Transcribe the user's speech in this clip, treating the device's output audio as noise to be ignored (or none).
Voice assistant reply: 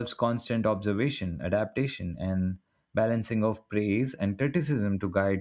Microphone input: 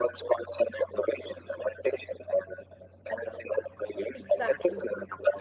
Exactly,